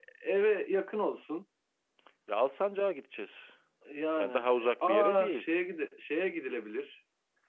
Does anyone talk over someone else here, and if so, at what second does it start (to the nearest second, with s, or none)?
4 s